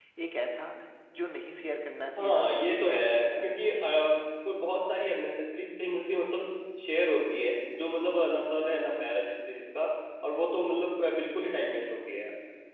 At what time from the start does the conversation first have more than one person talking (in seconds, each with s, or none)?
2.2 s